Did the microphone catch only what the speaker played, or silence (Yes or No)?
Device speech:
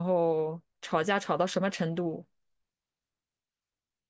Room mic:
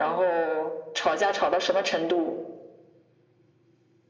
Yes